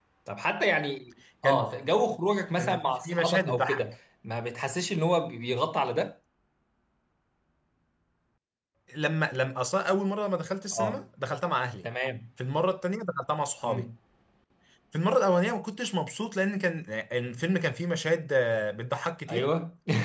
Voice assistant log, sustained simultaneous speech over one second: present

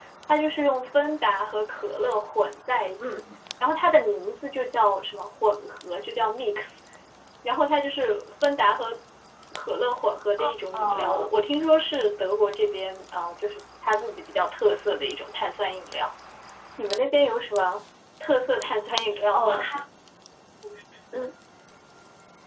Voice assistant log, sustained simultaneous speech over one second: none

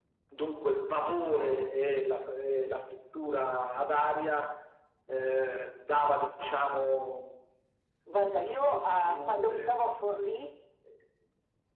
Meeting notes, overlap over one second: present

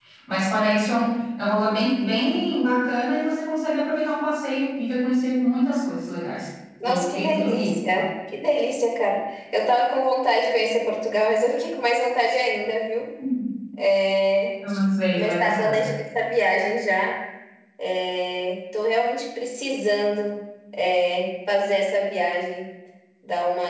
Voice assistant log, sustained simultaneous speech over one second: present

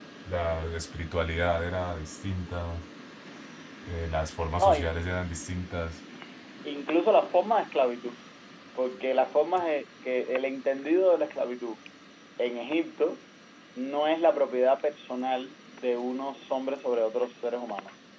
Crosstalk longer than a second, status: none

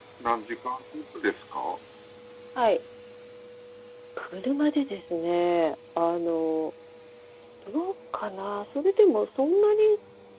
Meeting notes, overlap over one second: none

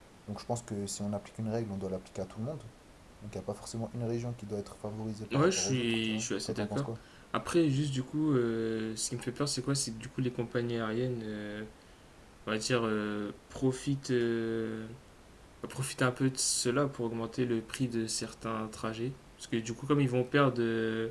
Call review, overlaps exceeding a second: present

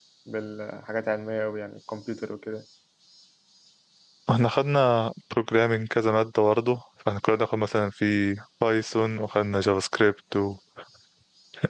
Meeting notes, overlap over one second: none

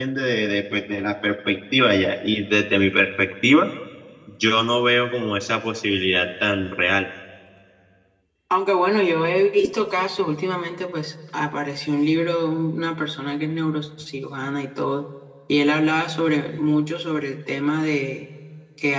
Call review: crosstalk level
none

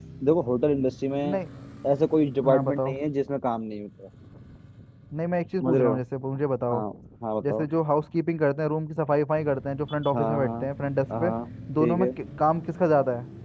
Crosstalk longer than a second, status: none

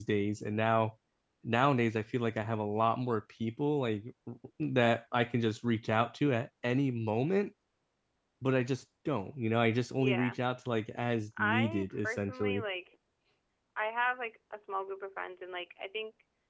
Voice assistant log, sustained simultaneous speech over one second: present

